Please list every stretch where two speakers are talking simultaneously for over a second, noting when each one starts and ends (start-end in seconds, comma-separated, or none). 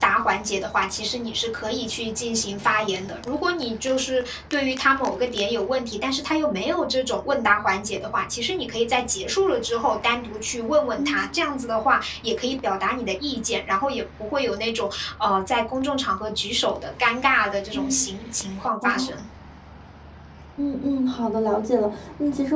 none